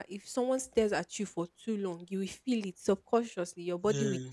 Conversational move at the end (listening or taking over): listening